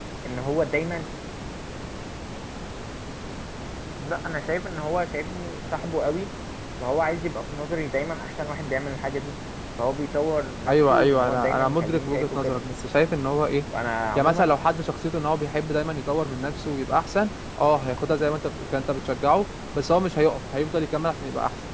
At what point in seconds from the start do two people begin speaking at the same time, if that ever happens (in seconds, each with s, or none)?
10.7 s